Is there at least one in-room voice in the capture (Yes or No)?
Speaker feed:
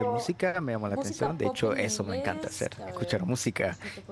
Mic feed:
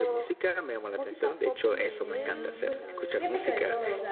Yes